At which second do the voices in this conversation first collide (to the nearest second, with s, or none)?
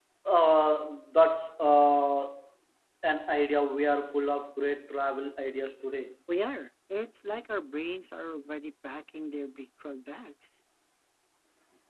none